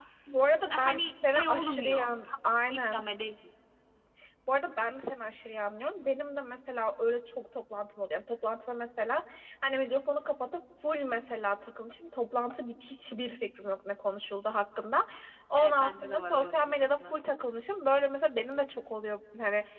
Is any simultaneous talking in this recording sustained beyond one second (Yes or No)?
Yes